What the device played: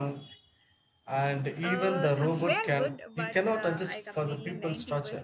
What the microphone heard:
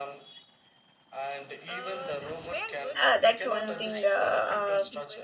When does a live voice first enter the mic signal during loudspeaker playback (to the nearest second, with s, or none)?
3 s